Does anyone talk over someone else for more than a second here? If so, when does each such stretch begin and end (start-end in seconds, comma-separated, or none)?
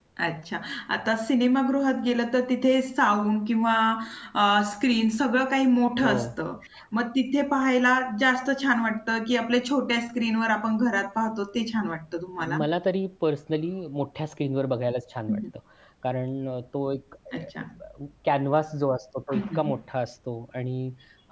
none